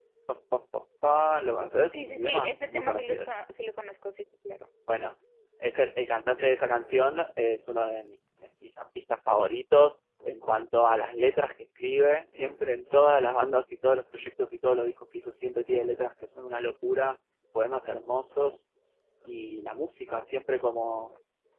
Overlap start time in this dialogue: 2 s

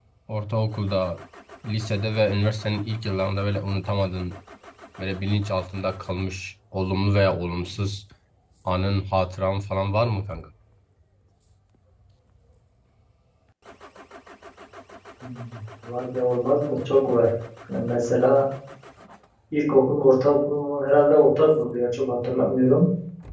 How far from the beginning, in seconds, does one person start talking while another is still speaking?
none

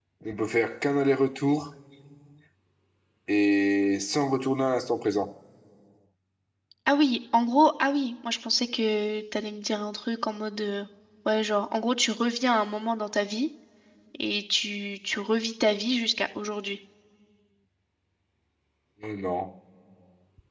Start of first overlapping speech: none

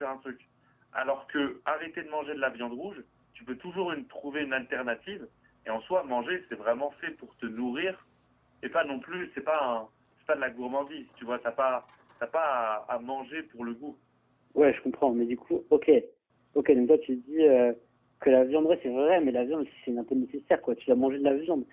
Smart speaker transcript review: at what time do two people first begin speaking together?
none

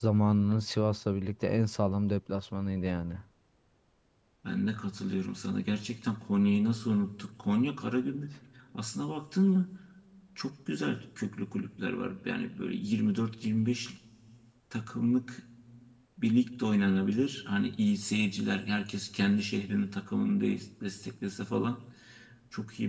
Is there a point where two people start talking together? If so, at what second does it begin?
none

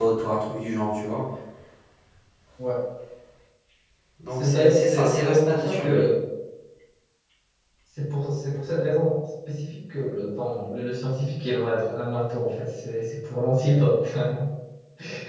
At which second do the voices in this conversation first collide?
4 s

